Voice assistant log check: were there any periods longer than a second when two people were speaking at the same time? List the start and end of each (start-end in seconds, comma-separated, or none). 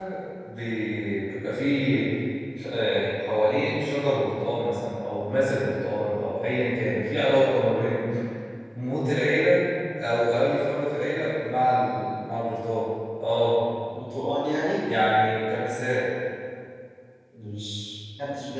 none